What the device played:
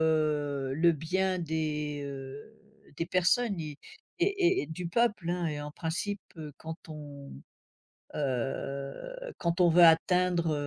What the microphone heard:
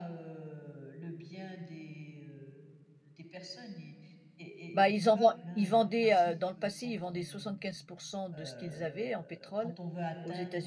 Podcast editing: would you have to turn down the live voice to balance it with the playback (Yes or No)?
Yes